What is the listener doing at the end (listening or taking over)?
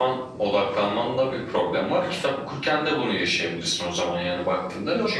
taking over